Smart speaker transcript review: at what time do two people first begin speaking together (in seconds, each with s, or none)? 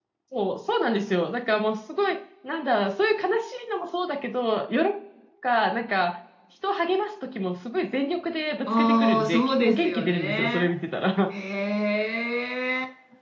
8.7 s